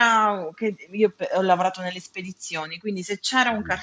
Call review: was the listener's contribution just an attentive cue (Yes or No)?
Yes